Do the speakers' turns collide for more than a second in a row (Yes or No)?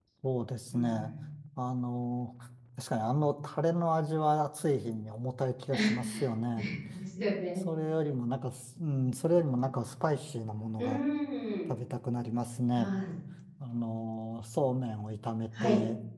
No